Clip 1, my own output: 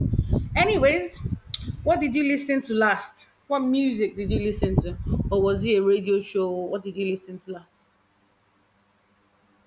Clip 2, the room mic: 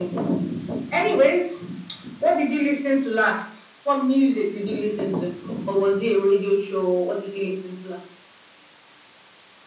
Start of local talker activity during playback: none

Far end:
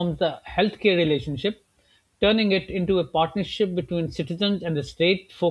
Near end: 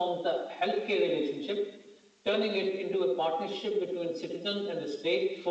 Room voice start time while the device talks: none

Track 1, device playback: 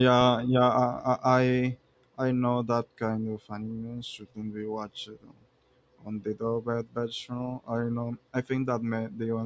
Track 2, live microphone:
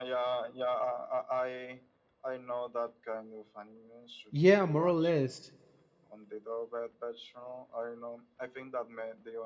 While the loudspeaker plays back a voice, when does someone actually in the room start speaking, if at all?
4.3 s

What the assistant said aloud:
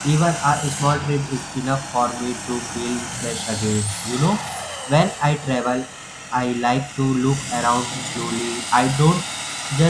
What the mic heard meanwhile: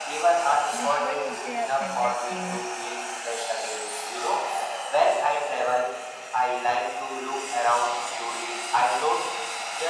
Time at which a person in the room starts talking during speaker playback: 0.7 s

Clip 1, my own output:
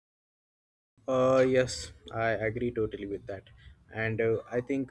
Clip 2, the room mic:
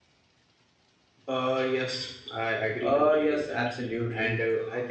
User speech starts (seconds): 2.8 s

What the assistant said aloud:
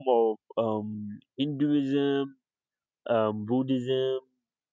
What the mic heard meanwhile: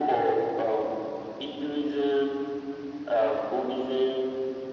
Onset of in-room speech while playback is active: none

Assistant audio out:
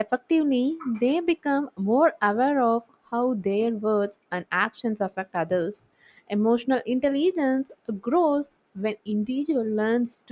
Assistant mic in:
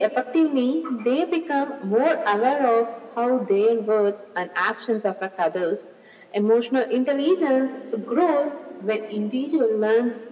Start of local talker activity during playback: none

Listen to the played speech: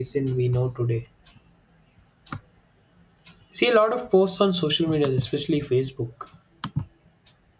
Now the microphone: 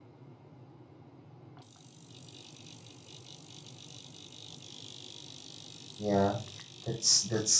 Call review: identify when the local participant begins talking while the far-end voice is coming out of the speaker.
6.0 s

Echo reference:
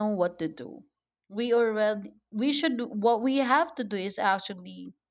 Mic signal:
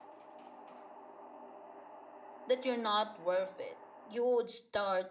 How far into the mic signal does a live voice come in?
2.5 s

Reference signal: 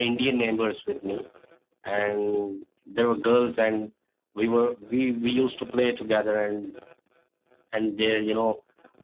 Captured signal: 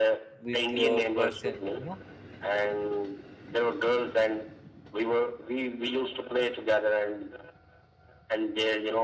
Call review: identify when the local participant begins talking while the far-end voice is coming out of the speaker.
0.4 s

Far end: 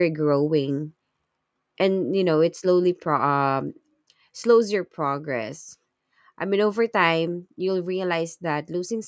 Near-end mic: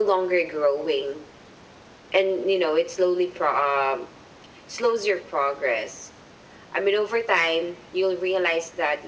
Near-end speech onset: none

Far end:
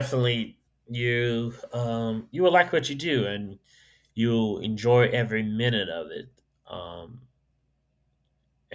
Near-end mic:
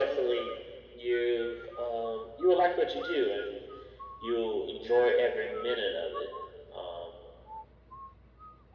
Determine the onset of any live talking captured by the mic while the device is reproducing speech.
none

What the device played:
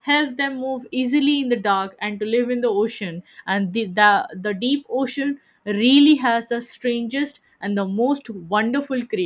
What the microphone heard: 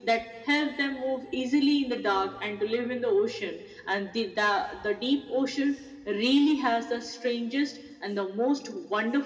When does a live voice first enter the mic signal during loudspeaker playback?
none

